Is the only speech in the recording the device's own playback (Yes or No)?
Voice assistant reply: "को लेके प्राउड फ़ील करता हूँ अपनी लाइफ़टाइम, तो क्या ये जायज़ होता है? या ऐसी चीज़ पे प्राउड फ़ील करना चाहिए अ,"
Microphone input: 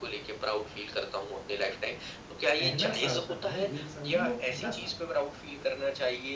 No